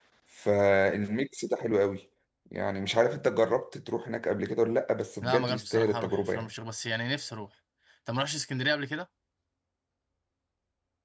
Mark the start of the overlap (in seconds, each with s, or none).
5.2 s